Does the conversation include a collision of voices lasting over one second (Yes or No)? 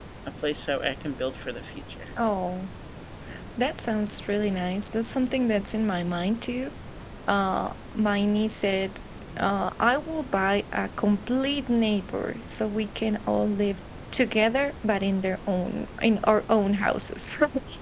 No